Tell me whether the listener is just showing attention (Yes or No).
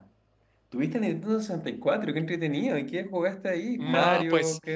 No